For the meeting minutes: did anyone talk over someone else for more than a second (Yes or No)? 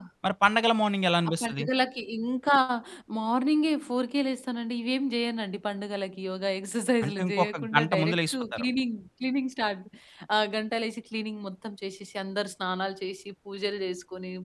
Yes